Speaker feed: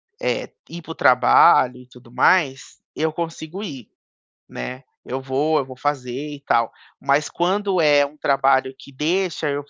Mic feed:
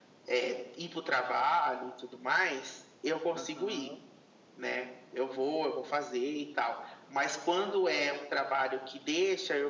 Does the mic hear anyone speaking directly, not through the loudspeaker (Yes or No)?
Yes